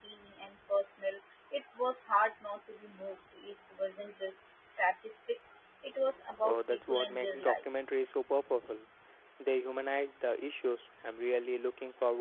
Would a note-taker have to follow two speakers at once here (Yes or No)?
Yes